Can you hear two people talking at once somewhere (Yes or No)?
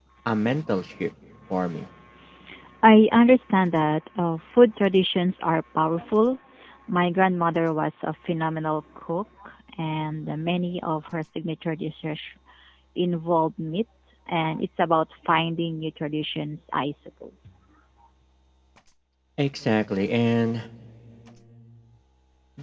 No